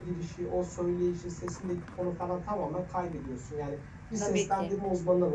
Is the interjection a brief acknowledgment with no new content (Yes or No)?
Yes